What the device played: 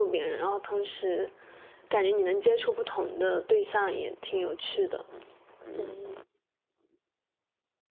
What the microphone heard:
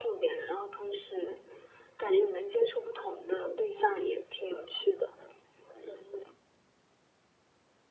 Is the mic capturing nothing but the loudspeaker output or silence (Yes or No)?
Yes